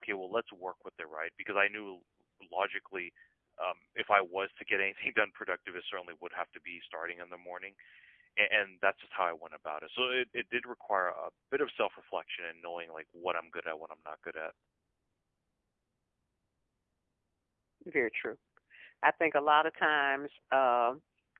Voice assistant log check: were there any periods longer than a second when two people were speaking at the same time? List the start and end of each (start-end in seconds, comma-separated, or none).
none